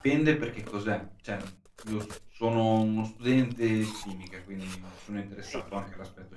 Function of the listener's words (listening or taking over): listening